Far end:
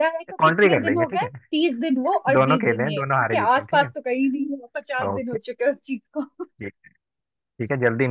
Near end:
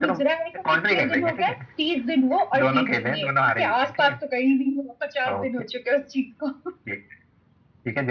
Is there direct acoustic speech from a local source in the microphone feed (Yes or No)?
No